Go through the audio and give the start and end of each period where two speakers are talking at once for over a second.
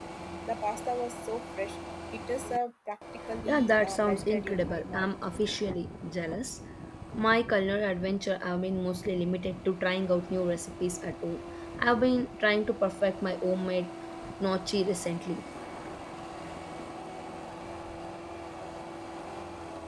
3.5-5.1

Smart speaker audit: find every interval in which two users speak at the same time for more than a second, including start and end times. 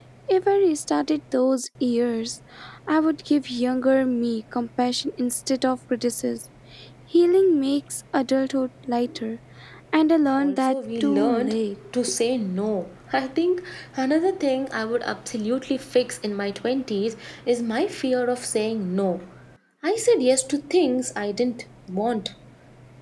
10.3-11.6

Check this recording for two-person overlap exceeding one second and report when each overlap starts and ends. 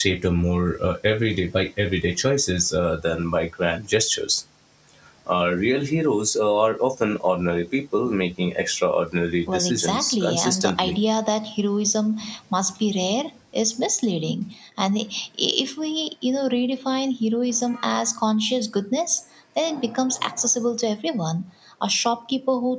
9.5-10.9

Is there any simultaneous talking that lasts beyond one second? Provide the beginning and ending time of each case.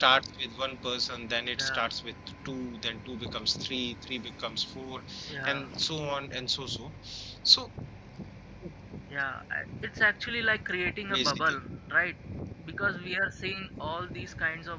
none

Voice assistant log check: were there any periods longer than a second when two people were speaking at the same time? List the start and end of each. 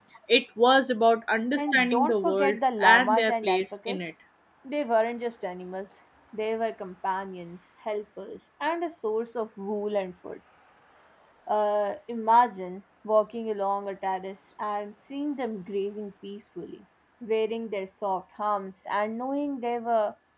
1.5-4.0

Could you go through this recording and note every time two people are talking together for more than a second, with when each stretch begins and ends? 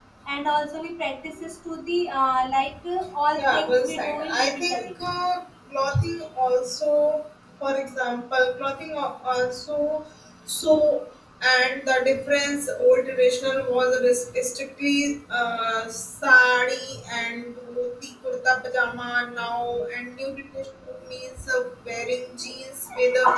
3.4-4.9

